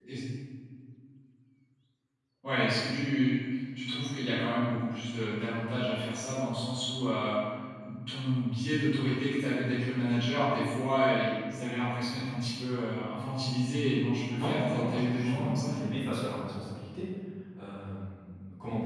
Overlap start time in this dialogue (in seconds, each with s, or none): 14.3 s